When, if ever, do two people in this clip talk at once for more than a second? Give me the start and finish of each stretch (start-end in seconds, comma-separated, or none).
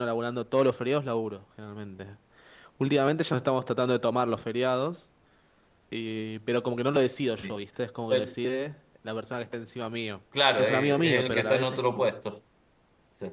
10.6-12.0